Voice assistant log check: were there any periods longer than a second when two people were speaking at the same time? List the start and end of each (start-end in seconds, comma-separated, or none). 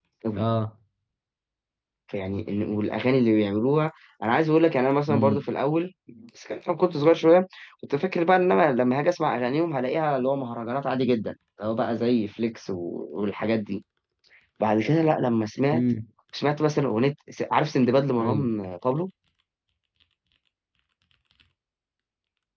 none